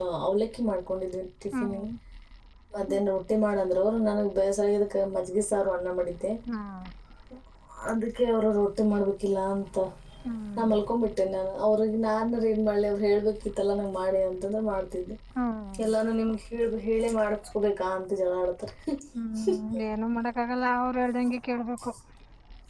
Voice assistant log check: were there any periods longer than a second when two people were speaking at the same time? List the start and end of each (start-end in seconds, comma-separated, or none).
none